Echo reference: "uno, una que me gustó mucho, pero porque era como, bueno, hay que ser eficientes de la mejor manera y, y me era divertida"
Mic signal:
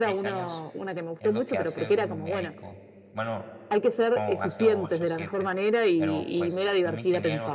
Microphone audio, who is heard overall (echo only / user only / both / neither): both